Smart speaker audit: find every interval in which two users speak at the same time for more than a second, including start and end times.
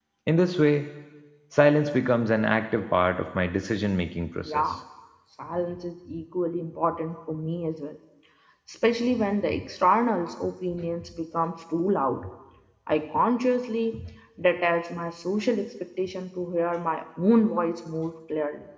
none

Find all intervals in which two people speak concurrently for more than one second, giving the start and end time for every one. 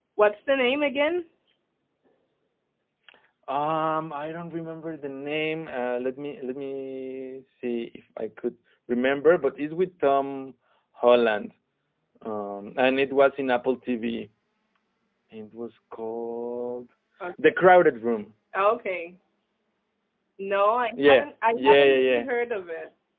21.0-22.2

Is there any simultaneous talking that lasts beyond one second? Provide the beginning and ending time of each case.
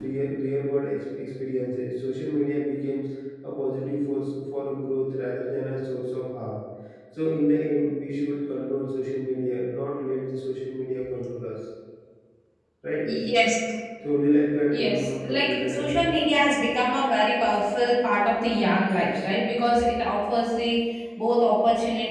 14.7-16.1

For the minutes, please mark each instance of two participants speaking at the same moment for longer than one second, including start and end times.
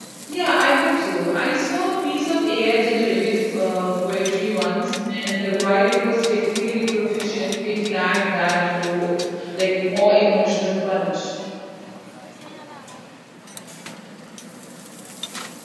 none

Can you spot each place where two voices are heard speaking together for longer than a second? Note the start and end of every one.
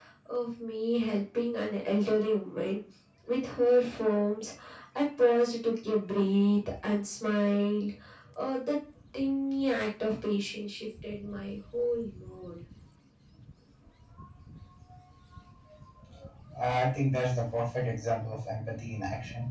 none

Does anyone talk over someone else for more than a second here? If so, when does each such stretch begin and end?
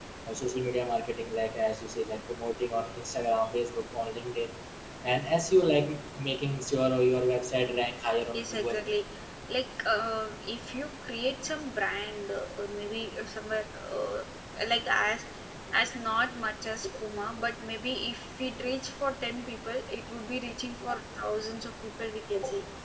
none

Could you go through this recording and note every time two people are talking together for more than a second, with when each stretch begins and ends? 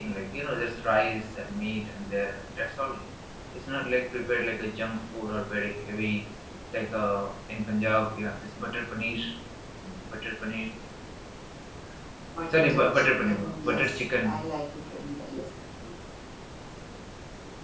12.7-14.3

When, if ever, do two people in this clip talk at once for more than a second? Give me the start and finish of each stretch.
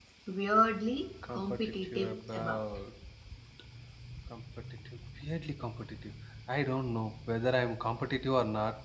1.3-2.6

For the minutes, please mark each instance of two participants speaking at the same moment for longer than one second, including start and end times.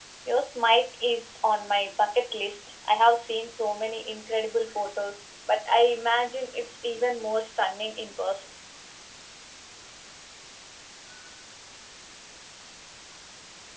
none

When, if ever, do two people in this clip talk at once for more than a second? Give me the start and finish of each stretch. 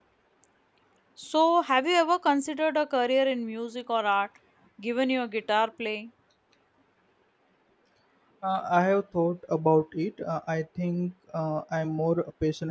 none

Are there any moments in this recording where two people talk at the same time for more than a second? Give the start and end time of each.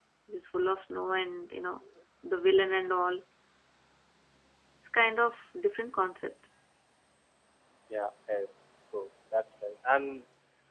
none

